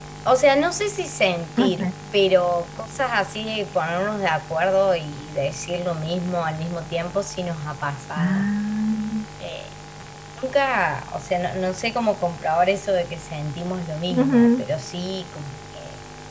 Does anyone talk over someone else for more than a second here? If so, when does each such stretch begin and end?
none

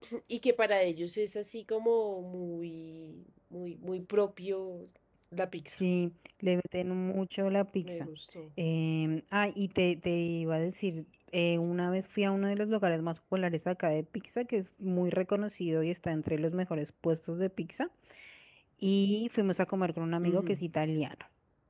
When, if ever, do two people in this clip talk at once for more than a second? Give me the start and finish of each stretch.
none

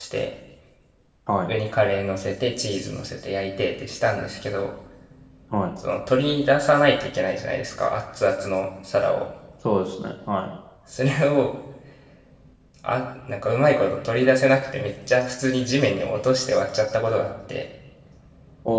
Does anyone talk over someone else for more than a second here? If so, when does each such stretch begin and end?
none

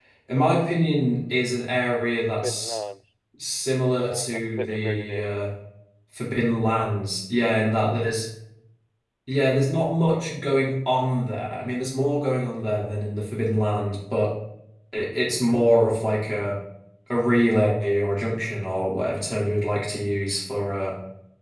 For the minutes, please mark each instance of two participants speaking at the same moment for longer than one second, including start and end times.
3.9-5.2

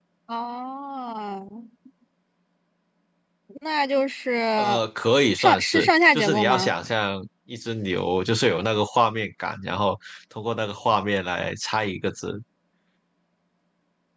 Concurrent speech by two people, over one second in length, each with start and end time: 5.4-6.7

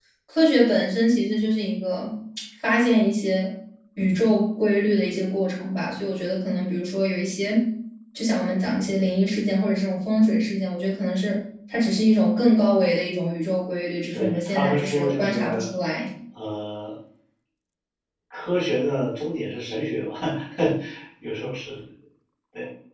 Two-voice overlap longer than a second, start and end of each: 14.1-15.7

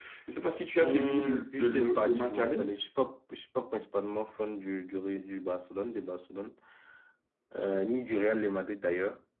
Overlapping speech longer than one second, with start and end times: 0.8-2.6

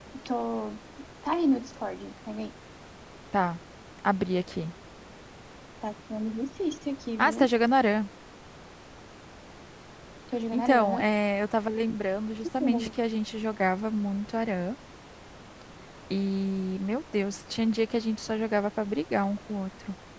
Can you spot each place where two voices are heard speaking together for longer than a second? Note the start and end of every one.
none

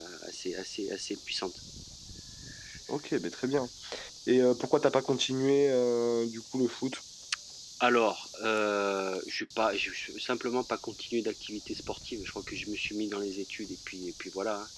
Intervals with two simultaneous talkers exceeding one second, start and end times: none

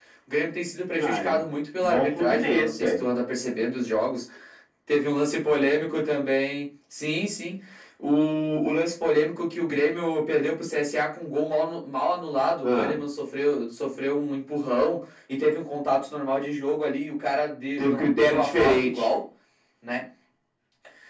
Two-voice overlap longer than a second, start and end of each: 1.8-3.0, 17.8-19.1

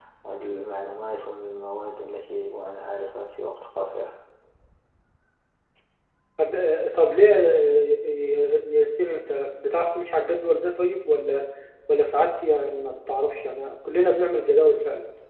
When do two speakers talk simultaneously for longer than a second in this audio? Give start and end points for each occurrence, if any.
none

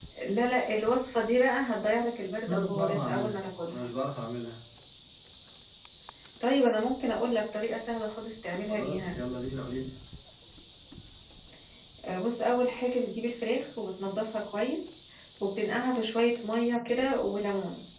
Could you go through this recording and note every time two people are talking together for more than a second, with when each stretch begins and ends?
2.5-3.9

